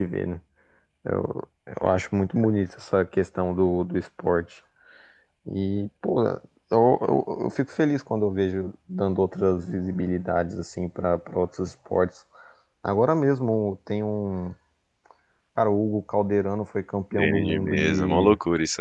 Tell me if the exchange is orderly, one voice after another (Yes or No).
No